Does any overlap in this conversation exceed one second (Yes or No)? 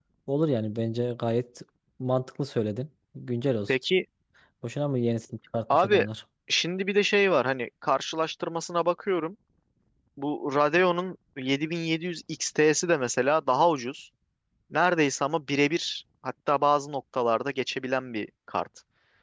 No